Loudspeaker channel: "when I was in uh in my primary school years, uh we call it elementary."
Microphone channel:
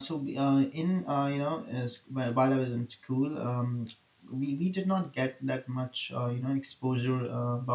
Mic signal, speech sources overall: user only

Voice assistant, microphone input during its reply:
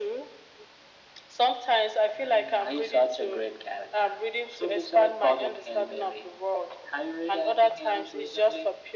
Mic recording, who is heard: echo only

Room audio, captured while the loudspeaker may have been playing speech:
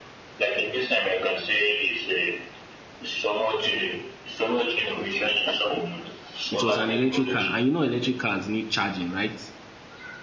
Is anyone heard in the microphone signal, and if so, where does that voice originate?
both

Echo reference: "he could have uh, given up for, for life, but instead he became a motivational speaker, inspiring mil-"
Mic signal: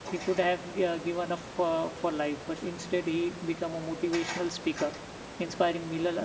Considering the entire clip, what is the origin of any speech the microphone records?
echo only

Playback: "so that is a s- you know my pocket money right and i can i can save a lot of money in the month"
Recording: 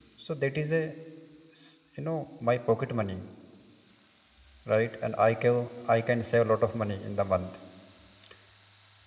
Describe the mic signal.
echo only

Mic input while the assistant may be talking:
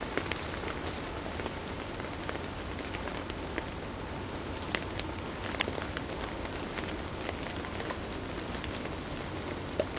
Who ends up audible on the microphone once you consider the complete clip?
neither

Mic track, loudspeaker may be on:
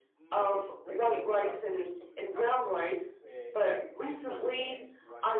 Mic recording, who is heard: both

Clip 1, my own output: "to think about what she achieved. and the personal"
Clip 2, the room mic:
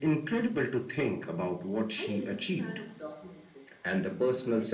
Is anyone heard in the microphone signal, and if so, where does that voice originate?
both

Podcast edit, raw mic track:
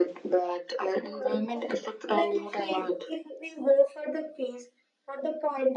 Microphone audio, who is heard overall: echo only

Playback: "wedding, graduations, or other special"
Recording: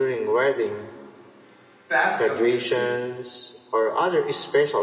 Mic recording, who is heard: both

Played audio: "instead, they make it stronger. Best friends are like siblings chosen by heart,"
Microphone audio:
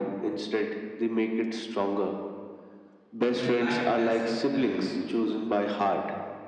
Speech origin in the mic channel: both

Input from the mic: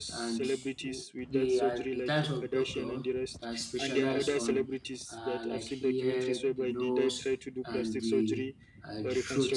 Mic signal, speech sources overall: both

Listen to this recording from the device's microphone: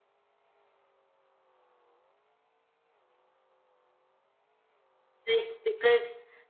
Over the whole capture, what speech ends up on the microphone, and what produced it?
user only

